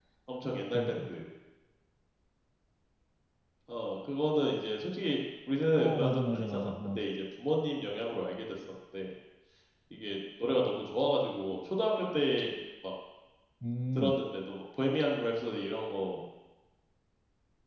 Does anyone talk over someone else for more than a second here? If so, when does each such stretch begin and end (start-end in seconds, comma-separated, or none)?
5.8-7.0